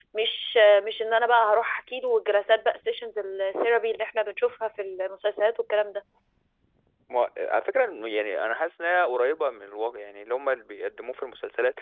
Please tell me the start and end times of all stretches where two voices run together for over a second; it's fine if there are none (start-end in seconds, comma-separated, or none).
none